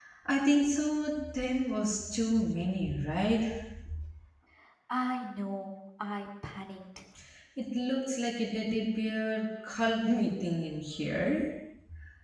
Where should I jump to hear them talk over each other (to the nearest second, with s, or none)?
none